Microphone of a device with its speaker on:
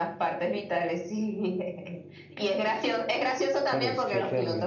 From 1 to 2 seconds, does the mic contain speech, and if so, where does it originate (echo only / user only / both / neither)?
echo only